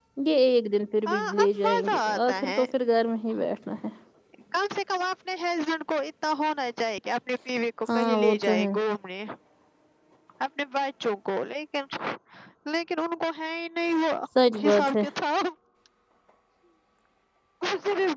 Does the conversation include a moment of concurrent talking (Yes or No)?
Yes